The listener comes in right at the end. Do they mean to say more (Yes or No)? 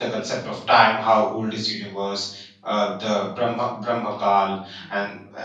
No